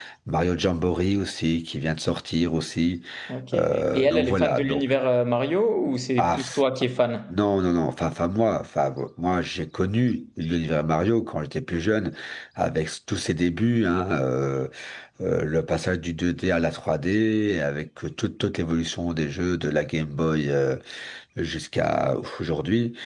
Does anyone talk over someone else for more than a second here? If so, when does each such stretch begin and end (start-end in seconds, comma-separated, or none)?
3.5-4.9